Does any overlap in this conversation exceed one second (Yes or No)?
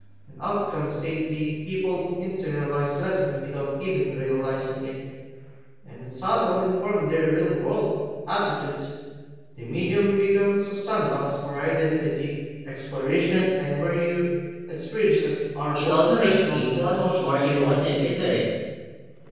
Yes